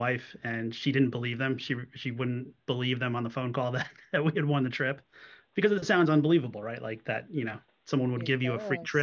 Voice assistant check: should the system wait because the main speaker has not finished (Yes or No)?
Yes